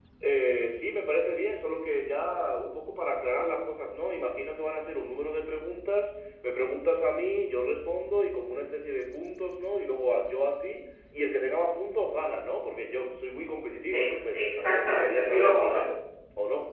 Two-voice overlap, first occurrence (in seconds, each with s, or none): 13.9 s